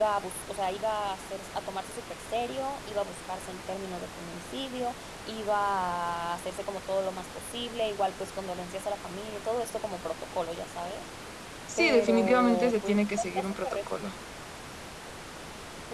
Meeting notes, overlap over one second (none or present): present